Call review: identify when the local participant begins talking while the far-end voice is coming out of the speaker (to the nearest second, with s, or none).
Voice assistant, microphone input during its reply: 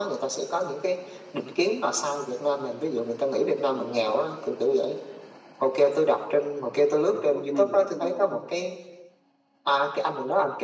7 s